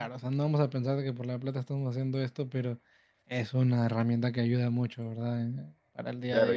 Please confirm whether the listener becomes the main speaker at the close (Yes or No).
Yes